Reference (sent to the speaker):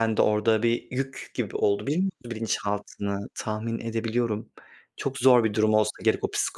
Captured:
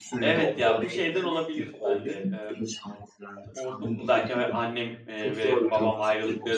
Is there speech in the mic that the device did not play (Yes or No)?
Yes